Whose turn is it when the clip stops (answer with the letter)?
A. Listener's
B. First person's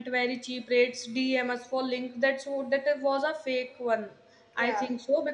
B